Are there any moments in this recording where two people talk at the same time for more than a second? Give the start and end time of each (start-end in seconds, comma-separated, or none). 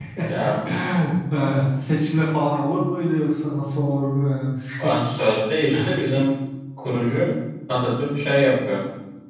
none